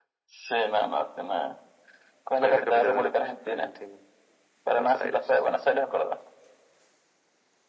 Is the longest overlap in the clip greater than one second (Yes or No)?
Yes